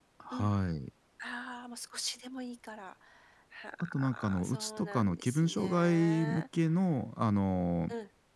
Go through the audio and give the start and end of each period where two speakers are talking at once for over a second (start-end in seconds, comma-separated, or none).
3.8-6.4